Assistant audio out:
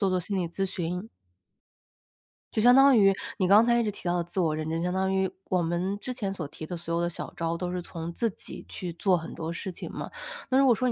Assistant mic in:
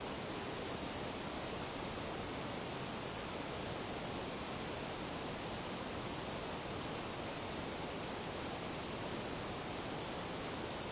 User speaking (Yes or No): No